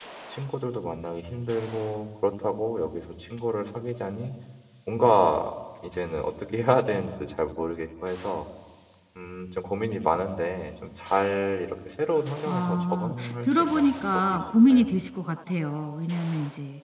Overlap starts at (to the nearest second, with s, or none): 12 s